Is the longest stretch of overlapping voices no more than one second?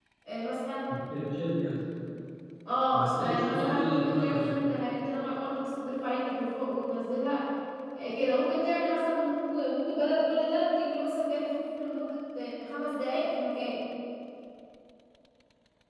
No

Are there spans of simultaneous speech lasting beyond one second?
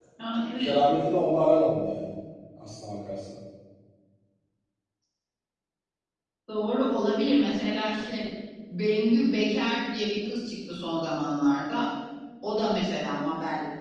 No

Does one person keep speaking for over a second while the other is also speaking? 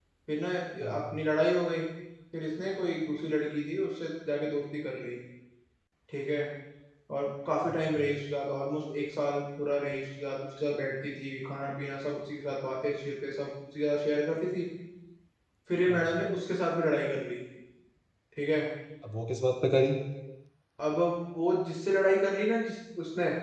No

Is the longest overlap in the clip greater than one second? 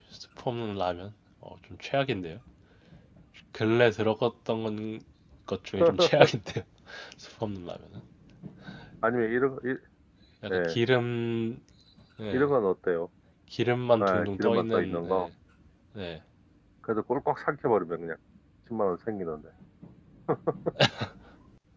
Yes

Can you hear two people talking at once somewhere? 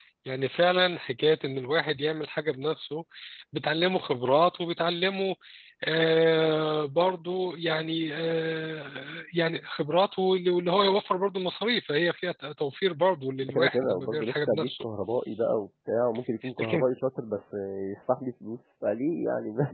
Yes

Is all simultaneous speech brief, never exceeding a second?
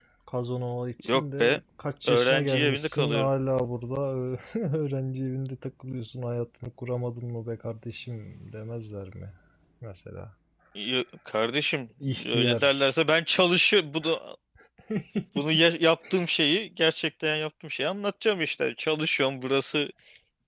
No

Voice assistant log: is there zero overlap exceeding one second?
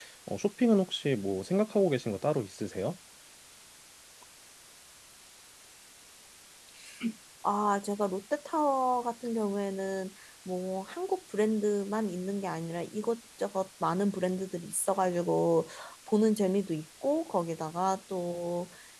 Yes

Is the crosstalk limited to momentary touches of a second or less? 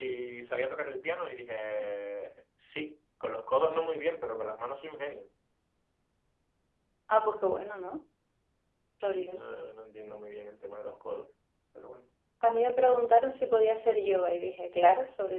Yes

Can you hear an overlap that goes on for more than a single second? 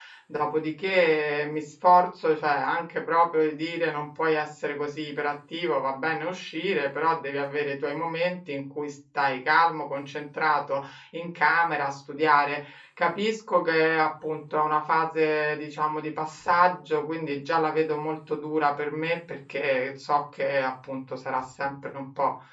No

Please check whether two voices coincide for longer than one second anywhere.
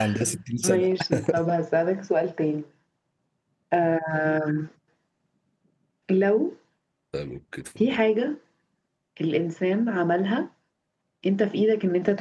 No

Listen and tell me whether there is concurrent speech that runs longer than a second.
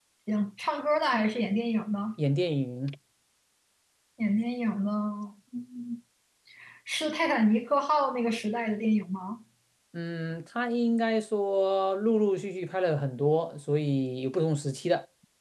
No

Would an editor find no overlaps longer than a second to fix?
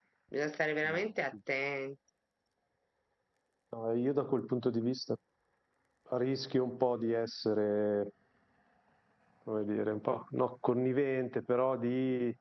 Yes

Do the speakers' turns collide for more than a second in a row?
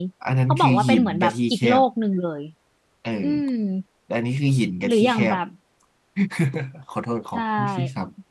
Yes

